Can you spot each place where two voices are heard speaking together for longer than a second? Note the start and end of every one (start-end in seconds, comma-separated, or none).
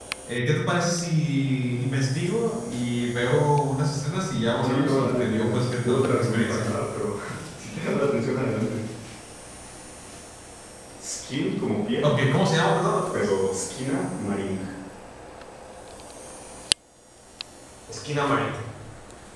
4.6-6.7